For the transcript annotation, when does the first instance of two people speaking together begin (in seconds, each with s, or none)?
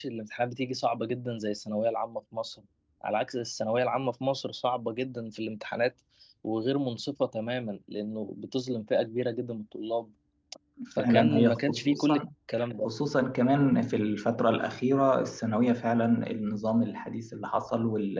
11.0 s